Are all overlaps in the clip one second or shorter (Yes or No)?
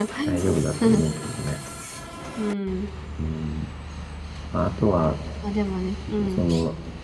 Yes